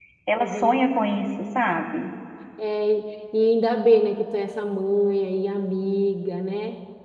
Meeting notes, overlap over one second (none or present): none